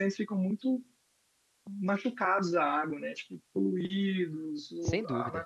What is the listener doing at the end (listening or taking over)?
listening